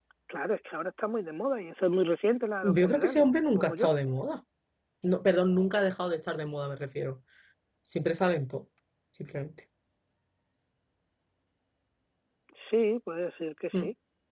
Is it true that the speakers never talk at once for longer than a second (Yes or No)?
No